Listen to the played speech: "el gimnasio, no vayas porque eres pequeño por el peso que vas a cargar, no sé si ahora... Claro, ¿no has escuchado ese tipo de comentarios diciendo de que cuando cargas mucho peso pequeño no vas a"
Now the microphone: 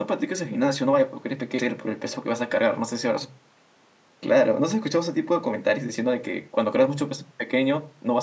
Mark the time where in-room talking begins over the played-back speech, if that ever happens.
none

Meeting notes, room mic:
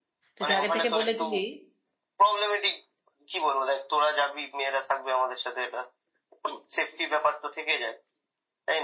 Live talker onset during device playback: 0.4 s

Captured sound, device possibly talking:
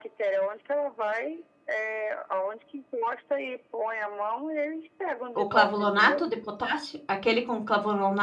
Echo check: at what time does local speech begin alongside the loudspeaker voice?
5.3 s

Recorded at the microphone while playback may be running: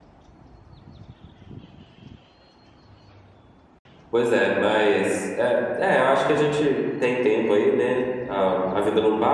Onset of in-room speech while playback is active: 4.1 s

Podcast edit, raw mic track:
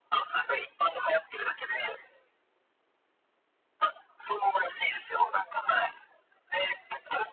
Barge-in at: none

